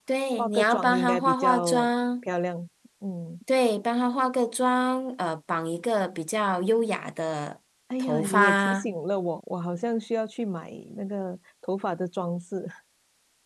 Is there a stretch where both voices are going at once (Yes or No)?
Yes